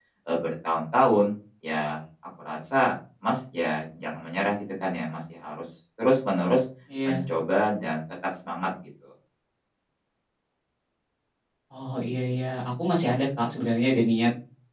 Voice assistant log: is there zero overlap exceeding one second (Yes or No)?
Yes